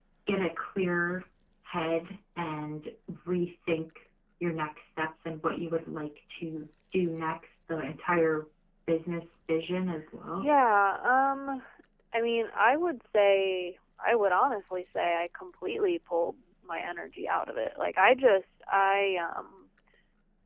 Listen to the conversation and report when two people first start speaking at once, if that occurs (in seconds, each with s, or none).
none